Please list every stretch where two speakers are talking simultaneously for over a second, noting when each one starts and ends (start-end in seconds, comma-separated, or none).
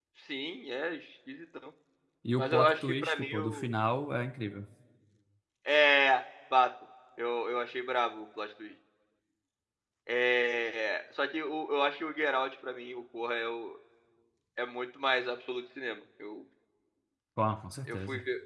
2.4-3.7